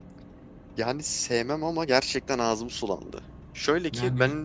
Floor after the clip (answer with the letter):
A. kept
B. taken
A